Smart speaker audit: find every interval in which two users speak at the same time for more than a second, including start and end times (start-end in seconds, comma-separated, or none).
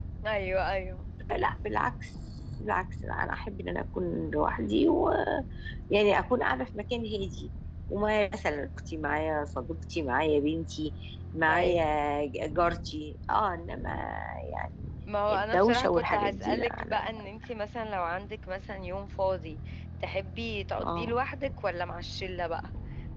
15.3-17.0